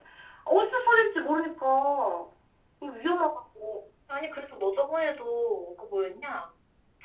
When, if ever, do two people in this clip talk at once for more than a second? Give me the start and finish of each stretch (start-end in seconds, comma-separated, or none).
none